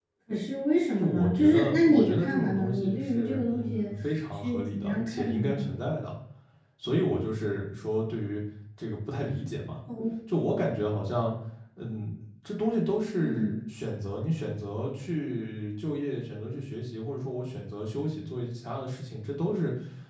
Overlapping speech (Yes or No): Yes